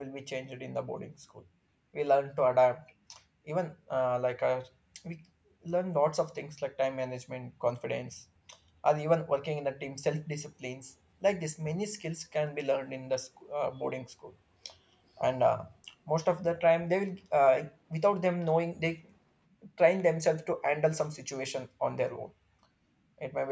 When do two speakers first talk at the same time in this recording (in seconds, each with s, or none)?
none